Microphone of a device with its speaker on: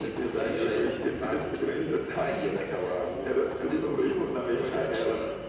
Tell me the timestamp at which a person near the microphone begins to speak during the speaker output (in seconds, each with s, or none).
none